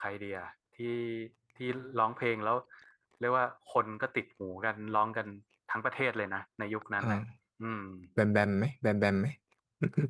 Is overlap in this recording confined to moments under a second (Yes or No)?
Yes